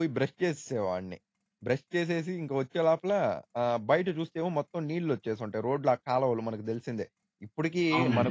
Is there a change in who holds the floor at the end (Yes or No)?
No